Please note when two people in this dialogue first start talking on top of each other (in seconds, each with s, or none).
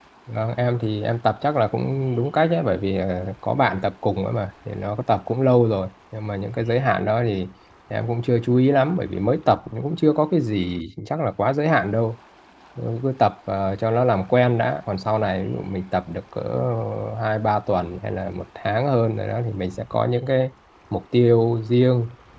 none